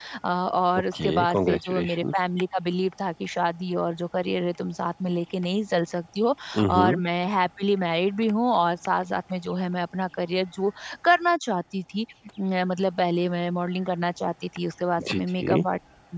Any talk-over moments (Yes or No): Yes